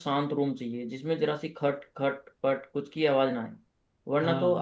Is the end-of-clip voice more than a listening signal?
No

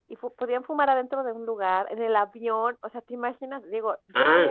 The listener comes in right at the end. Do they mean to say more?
No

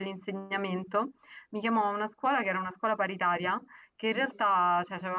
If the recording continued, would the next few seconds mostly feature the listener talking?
No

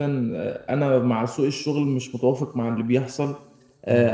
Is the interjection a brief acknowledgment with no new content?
Yes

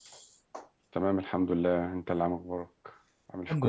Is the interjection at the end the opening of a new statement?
Yes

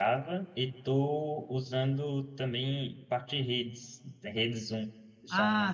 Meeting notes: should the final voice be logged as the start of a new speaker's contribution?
Yes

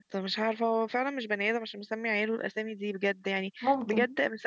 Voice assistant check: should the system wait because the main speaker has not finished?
Yes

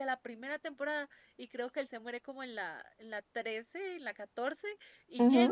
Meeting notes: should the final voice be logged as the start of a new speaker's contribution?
No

